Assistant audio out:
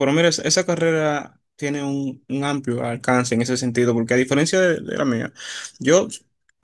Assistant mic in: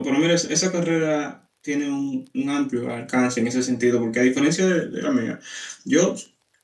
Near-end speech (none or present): none